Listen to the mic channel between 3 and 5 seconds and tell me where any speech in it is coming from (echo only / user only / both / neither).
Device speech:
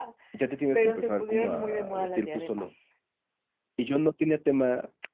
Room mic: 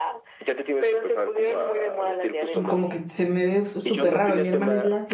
both